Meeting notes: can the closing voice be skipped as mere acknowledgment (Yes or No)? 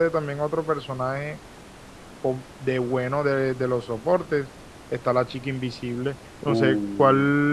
Yes